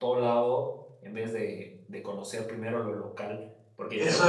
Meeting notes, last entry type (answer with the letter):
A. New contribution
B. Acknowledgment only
A